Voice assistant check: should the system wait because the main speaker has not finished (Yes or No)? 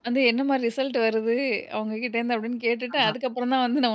Yes